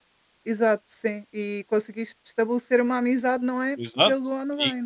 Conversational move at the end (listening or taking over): taking over